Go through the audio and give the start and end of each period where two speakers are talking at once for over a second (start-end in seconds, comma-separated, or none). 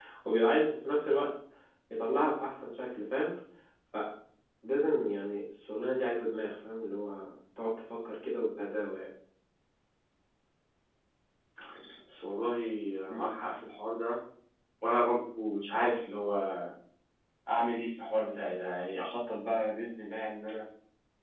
none